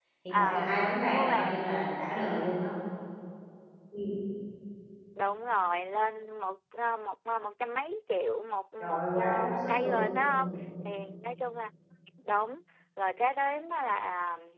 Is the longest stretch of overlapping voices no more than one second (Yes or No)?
No